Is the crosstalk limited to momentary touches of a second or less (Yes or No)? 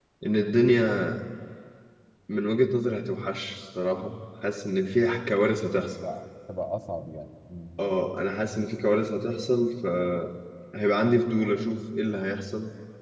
Yes